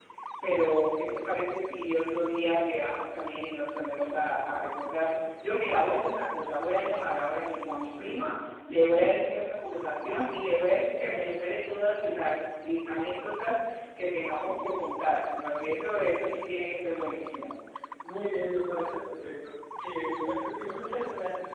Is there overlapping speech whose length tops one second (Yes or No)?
No